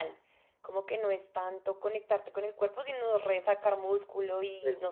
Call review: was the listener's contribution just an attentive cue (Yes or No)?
No